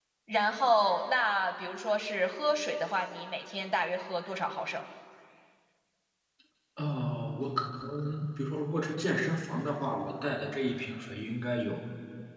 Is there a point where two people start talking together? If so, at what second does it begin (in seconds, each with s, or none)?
none